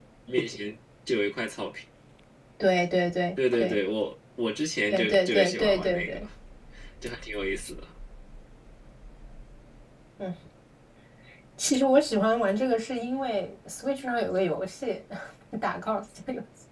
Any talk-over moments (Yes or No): Yes